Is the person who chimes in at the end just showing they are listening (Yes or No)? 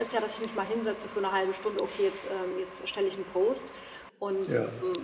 Yes